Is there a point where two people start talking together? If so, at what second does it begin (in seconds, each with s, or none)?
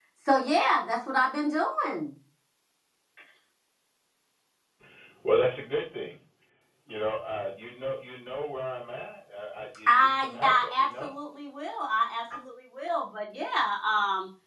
9.9 s